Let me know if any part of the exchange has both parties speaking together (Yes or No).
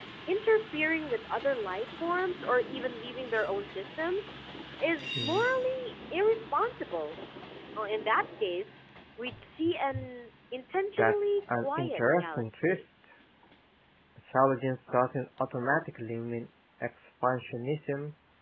Yes